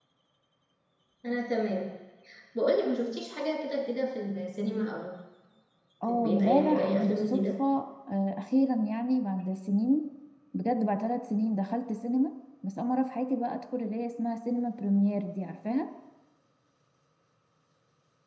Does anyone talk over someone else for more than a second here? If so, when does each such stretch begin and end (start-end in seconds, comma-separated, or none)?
6.0-7.4